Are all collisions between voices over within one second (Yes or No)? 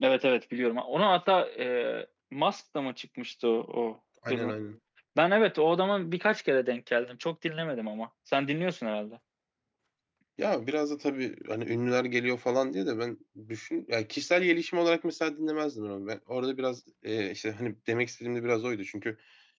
Yes